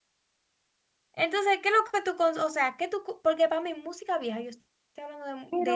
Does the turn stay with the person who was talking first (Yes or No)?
Yes